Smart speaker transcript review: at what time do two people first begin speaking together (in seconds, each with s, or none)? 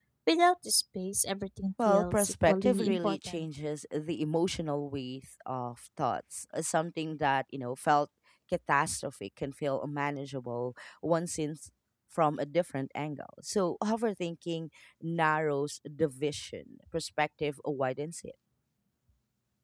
1.8 s